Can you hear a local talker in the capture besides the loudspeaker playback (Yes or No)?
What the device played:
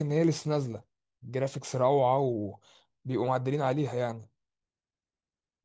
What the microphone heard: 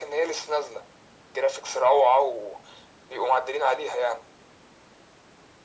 No